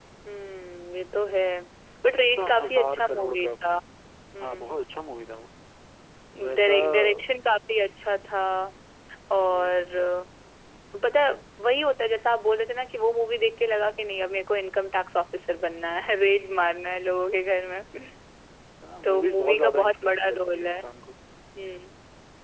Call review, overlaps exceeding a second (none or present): present